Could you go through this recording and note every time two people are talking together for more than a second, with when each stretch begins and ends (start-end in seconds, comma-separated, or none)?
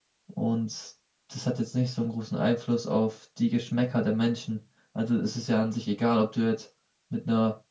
none